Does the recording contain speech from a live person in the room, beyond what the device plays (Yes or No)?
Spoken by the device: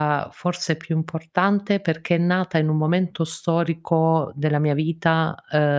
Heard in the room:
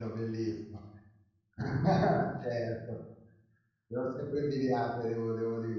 Yes